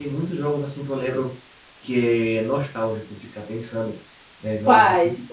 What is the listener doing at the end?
listening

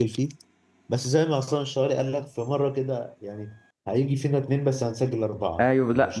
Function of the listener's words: taking over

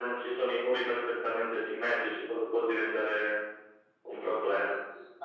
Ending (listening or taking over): taking over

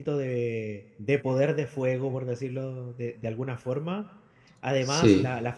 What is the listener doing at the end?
listening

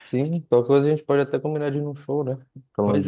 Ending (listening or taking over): taking over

